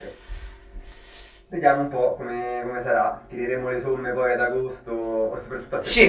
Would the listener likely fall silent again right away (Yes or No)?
No